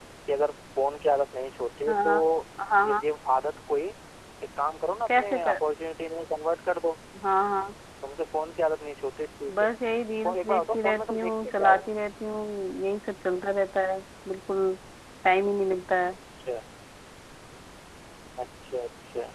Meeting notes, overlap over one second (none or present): present